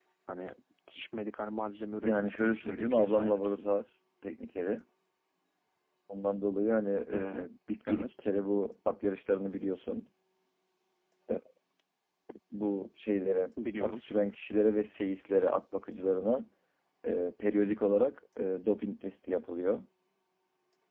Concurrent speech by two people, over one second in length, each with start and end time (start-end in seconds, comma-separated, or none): 2.0-3.7